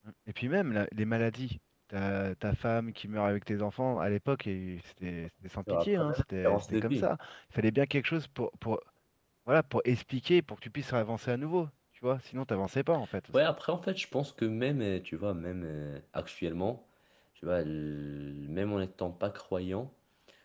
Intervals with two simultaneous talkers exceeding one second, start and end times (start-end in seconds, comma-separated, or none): 5.7-7.1